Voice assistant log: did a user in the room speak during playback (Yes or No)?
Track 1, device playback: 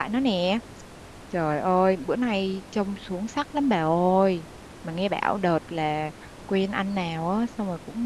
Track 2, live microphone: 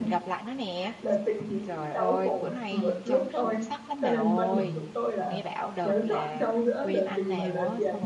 Yes